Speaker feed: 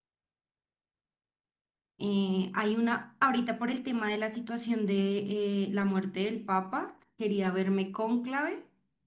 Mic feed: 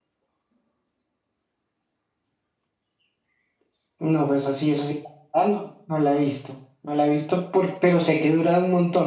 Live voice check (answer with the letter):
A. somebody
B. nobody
A